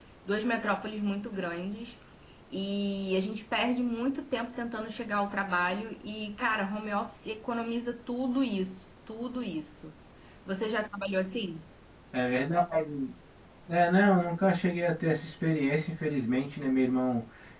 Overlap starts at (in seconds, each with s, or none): none